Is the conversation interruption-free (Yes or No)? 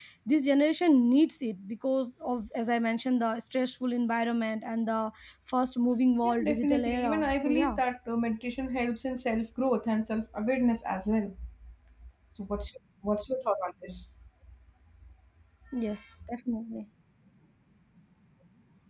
No